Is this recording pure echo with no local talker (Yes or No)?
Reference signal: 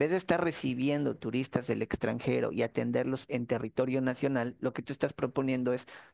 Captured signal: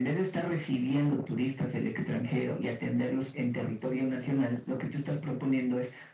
Yes